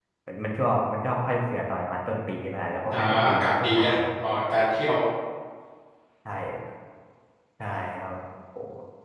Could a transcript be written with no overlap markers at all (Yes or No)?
No